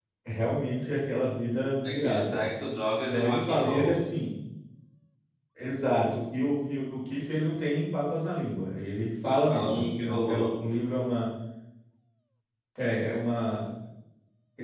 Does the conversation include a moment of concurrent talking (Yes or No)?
Yes